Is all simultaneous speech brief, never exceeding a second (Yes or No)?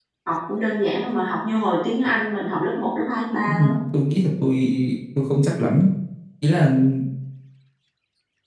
Yes